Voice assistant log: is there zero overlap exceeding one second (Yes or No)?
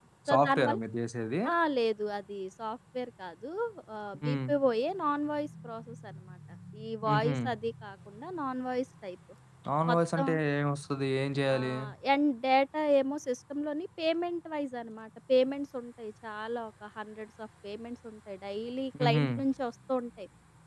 Yes